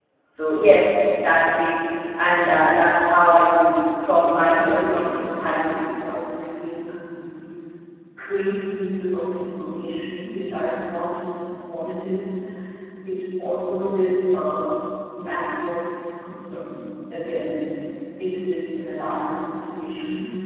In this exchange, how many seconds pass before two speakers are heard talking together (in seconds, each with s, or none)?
4.2 s